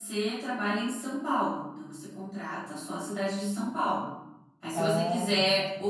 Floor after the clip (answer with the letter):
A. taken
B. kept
B